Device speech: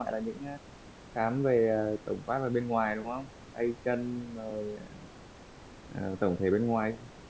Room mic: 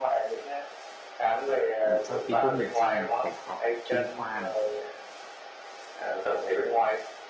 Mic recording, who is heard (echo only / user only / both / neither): both